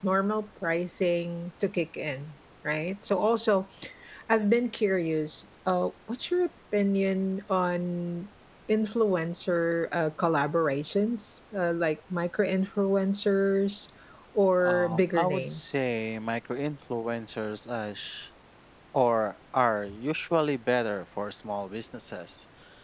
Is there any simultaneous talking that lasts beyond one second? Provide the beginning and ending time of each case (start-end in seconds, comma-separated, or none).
14.6-15.8